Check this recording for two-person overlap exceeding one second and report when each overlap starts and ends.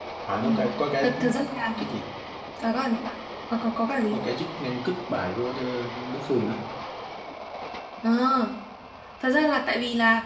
none

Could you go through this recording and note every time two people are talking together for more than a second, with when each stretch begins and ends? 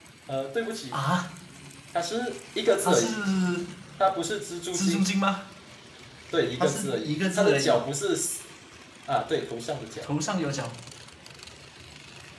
6.6-7.9

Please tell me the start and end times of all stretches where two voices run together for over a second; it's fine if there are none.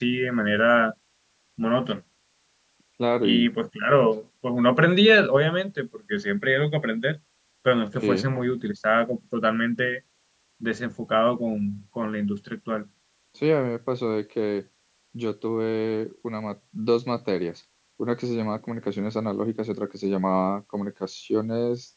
none

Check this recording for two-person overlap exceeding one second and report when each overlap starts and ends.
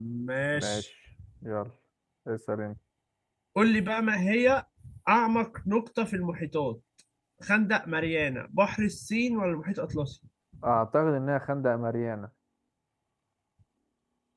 none

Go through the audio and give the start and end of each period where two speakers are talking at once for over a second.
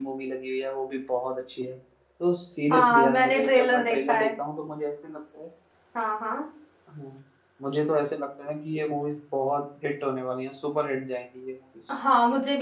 2.7-4.3

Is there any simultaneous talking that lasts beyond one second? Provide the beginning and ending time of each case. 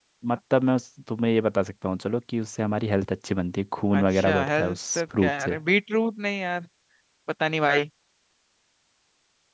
4.0-5.6

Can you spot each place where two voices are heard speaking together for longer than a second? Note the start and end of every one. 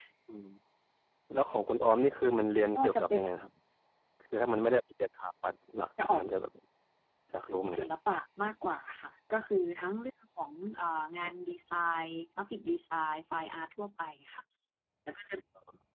none

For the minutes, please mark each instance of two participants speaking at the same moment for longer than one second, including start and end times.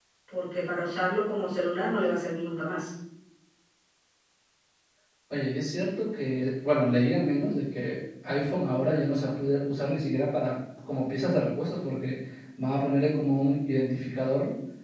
none

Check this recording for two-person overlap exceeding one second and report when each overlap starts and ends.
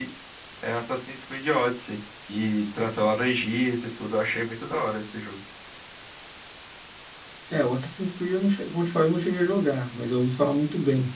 none

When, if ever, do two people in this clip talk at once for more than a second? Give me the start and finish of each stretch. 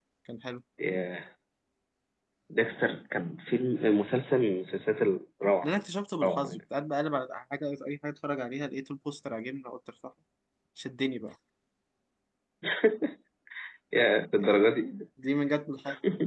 none

